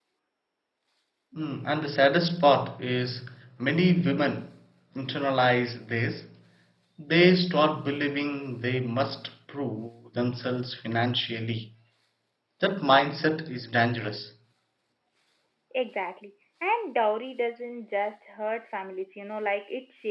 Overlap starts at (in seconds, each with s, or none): none